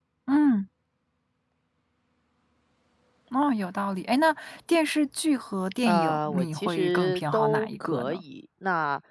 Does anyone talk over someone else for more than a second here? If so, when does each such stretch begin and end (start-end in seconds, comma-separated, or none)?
5.9-8.2